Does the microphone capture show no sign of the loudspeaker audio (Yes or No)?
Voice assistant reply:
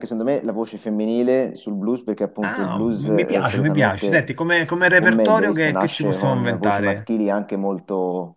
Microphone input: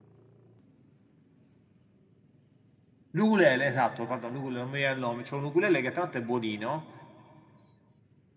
Yes